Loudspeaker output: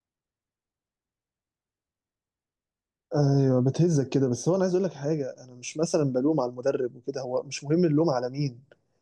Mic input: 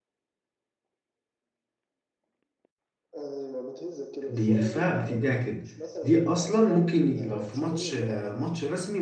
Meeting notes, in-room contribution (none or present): present